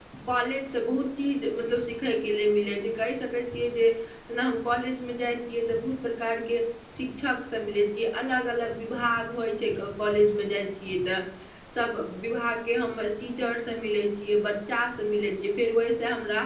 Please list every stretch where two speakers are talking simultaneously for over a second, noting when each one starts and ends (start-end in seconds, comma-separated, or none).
none